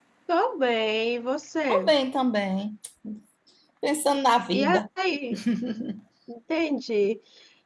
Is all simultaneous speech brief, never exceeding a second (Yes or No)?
Yes